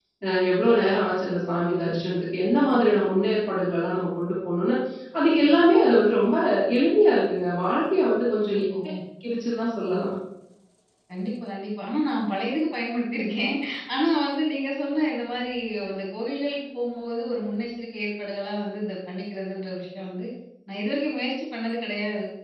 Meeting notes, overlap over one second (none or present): none